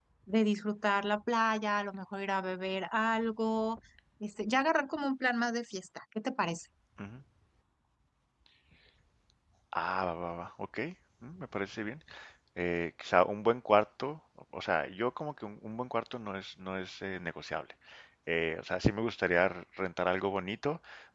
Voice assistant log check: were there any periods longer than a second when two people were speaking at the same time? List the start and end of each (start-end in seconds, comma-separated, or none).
none